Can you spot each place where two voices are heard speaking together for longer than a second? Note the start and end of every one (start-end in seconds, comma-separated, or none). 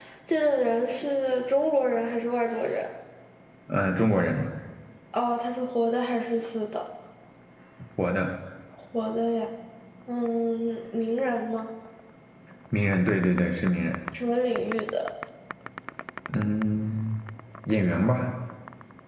none